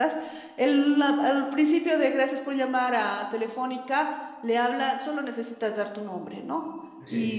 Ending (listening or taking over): listening